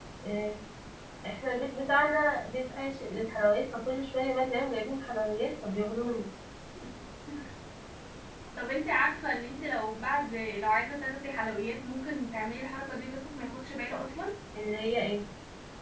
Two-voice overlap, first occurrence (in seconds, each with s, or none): none